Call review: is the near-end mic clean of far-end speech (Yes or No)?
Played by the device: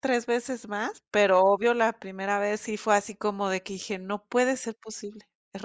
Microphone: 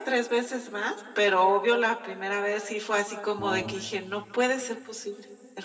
No